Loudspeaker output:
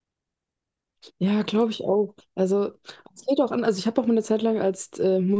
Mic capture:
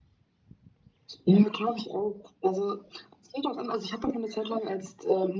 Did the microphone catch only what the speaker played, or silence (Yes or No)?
Yes